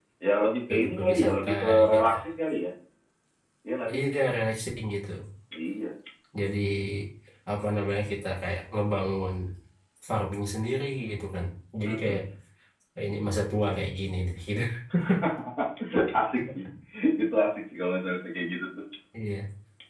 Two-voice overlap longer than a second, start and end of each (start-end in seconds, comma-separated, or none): 0.7-2.1